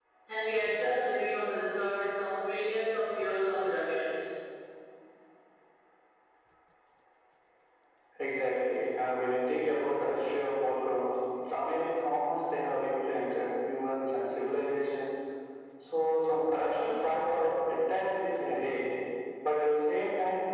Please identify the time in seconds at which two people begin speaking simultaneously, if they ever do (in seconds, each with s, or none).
none